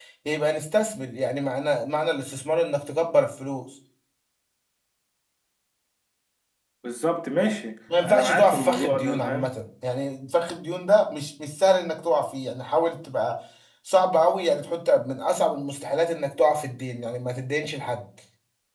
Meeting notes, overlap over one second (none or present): present